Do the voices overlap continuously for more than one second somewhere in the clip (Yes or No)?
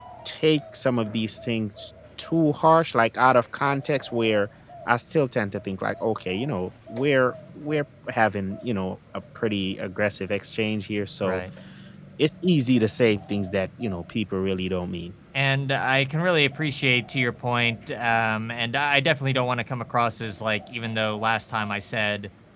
No